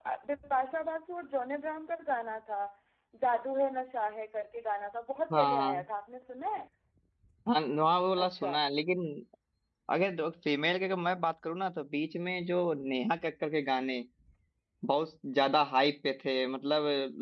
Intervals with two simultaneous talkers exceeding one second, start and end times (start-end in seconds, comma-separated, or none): none